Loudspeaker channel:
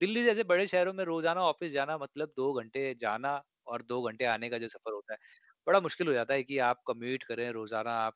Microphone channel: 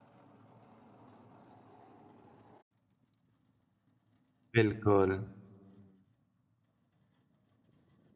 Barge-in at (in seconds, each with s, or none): 4.6 s